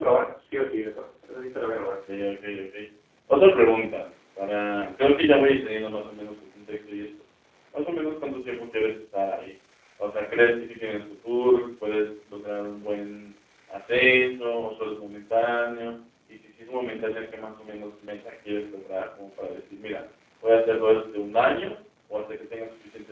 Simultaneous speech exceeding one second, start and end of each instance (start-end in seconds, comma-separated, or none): none